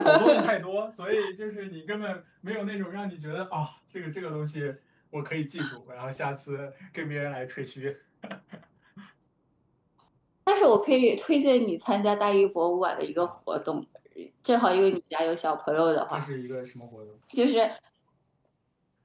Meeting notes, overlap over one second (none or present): none